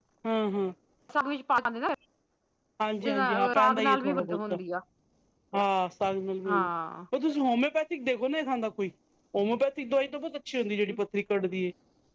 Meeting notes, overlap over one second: present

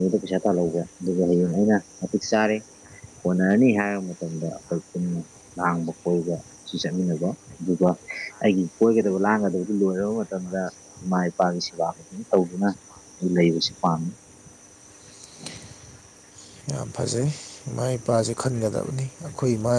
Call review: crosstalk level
none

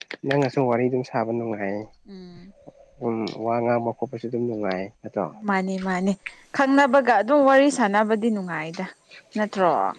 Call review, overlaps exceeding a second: none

